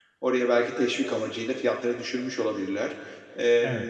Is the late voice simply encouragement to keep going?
Yes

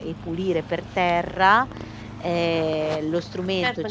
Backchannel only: No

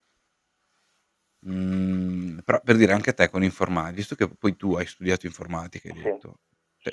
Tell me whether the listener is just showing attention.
Yes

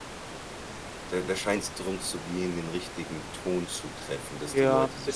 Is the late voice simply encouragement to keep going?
No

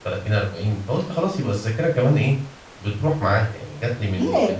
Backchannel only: No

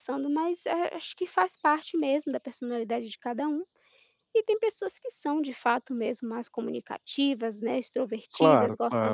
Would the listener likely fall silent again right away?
Yes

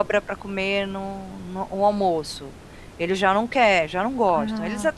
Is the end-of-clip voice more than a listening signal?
No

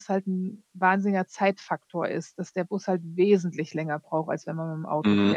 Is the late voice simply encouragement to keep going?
No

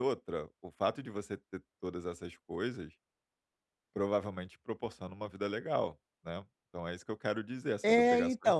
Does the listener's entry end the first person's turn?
Yes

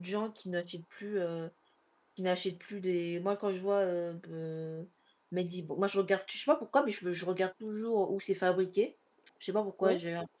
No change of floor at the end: Yes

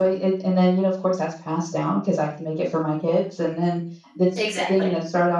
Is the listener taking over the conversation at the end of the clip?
No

